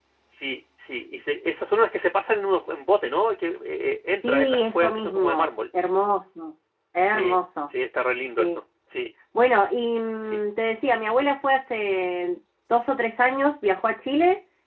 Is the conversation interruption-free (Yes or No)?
No